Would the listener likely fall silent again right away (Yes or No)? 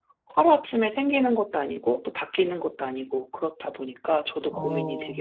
No